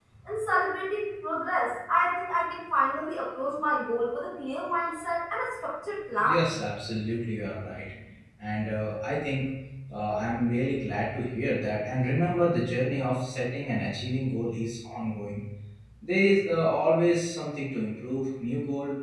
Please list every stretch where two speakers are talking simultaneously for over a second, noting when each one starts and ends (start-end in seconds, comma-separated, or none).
none